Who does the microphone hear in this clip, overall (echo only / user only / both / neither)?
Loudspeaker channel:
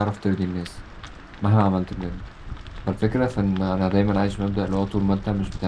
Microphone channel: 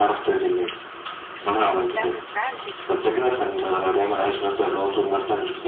both